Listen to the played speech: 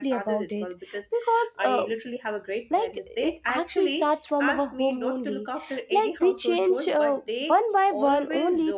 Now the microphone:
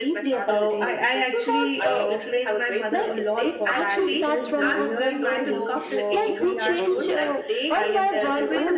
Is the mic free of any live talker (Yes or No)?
No